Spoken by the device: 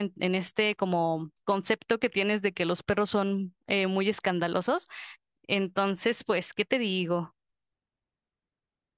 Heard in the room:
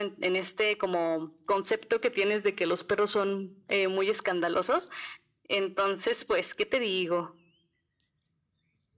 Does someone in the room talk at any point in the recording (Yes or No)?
No